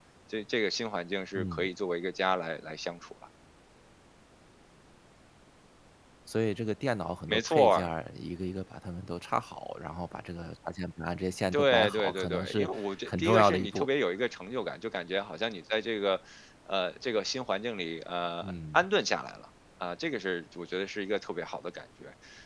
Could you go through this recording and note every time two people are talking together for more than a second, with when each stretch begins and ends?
11.5-13.9

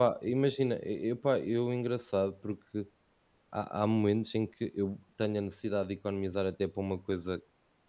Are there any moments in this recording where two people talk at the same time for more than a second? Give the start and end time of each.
none

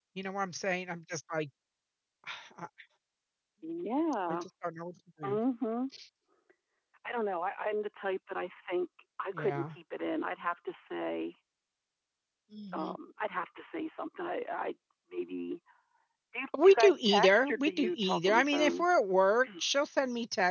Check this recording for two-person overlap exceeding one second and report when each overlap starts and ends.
16.6-18.9

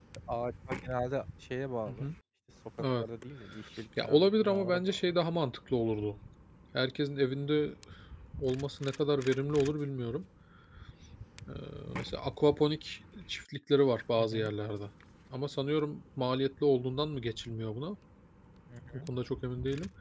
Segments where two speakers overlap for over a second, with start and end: 4.0-5.2

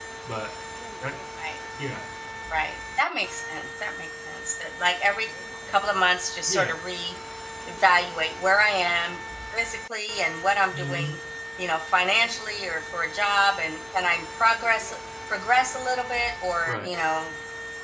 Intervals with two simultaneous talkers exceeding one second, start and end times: none

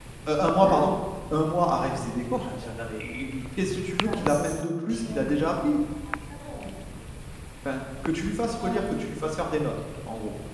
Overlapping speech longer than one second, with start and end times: 4.0-5.3

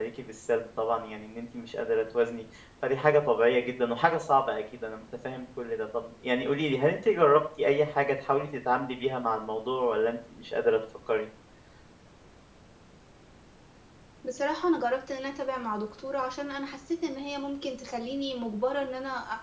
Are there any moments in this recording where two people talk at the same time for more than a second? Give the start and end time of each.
none

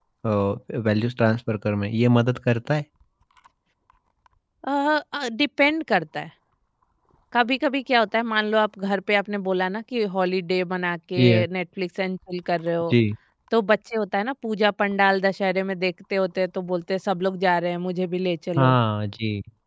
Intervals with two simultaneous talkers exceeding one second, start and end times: none

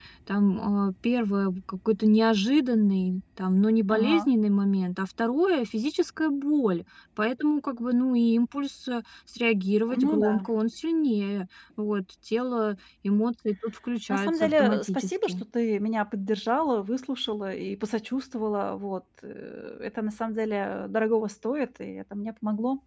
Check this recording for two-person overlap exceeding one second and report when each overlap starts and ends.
14.1-15.3

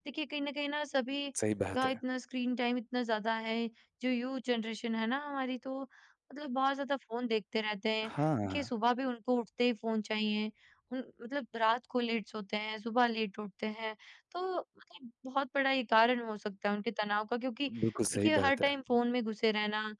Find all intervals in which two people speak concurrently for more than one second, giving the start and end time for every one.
none

